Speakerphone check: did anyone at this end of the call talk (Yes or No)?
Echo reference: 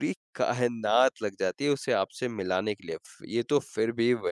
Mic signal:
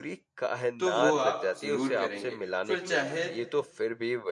Yes